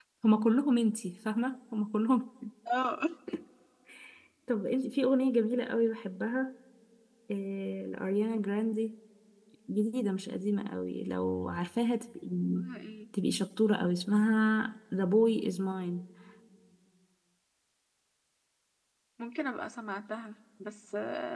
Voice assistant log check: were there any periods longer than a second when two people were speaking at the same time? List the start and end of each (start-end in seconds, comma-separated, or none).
none